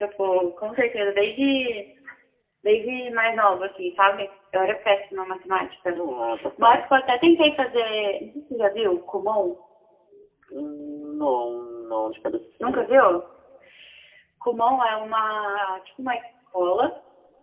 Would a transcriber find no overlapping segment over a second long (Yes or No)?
Yes